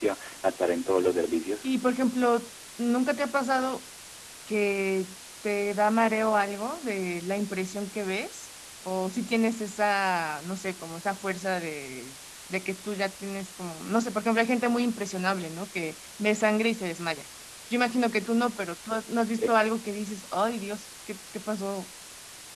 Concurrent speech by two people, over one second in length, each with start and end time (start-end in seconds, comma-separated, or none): none